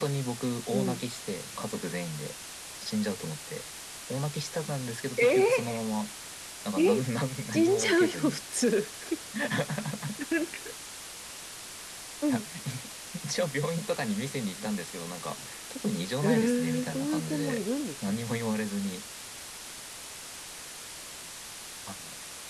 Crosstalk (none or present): present